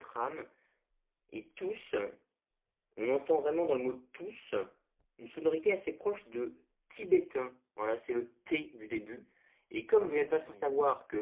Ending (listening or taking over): listening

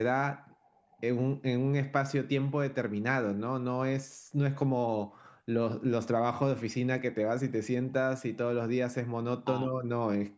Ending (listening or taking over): listening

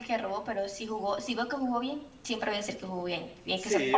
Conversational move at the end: taking over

